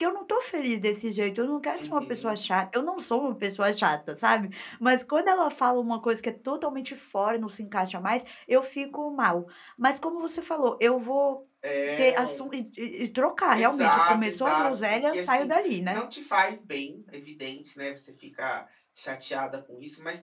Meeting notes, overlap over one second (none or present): present